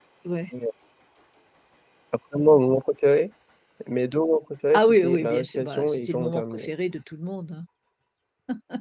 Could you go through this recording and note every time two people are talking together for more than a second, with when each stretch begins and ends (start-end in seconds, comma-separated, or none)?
4.7-6.7